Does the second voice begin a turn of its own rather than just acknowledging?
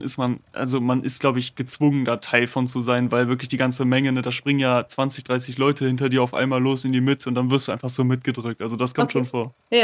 Yes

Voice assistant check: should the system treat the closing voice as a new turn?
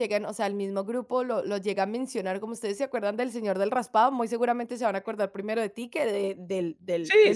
Yes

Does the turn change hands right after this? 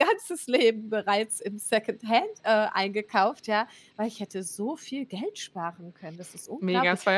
Yes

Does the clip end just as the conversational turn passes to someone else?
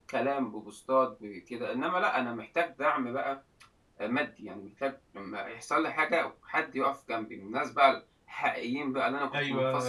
Yes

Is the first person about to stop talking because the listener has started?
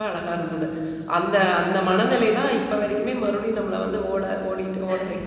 Yes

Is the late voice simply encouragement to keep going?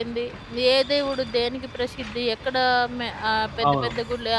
Yes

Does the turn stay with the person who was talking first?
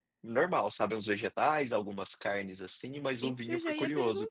No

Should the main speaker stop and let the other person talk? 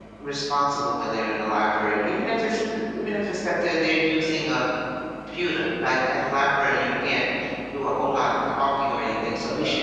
No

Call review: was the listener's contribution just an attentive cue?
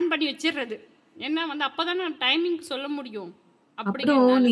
No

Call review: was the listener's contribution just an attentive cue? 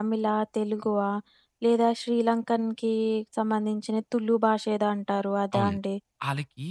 No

